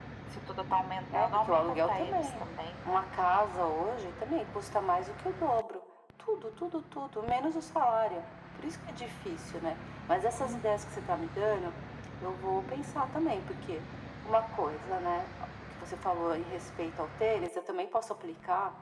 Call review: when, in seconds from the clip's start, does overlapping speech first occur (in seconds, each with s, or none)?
1.1 s